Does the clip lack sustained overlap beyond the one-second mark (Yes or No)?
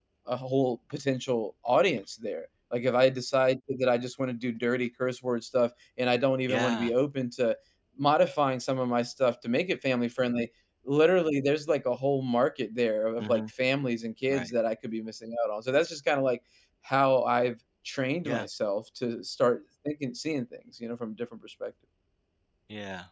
Yes